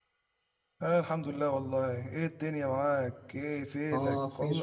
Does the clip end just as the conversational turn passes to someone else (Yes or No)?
Yes